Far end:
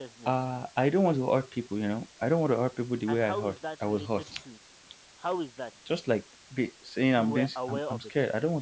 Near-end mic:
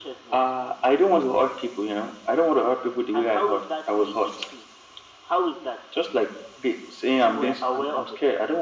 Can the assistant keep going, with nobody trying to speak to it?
Yes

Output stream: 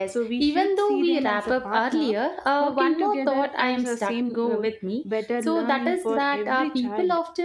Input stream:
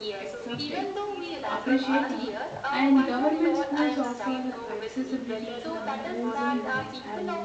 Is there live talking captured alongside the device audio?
Yes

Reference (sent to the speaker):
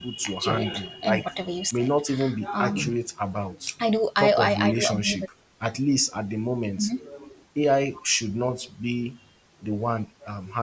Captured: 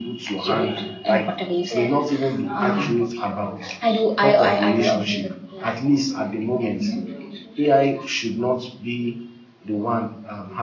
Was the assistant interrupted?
Yes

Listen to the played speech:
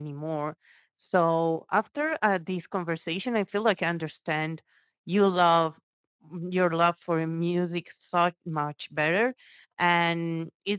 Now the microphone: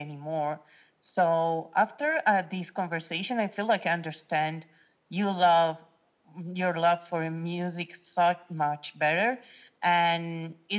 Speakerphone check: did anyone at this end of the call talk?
No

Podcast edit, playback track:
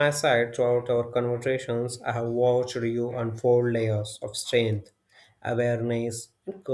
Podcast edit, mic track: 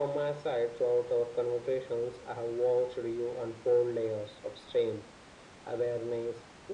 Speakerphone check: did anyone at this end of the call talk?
No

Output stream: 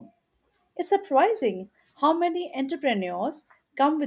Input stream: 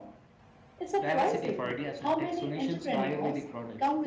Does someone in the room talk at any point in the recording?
Yes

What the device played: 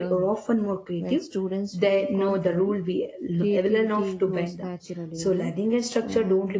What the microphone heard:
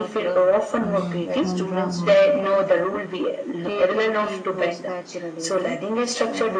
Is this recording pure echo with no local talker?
No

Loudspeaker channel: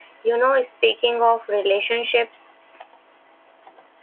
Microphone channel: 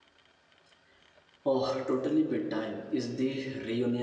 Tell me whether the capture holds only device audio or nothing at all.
No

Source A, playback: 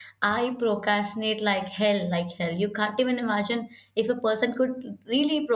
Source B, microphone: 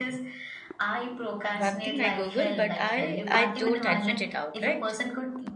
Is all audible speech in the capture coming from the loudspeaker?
No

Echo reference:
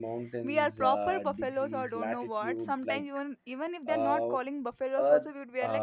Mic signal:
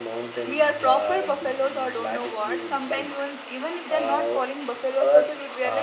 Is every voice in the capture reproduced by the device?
Yes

